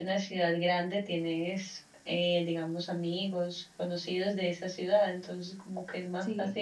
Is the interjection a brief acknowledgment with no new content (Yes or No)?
Yes